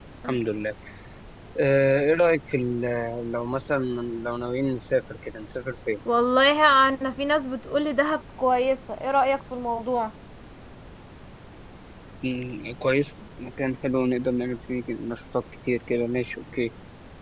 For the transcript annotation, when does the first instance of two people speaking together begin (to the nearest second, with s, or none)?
none